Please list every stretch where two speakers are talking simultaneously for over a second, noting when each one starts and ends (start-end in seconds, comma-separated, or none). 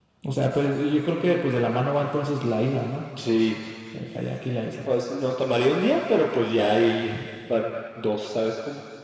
none